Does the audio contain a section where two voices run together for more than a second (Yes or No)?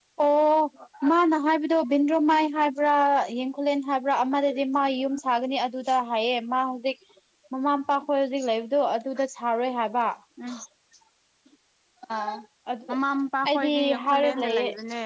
Yes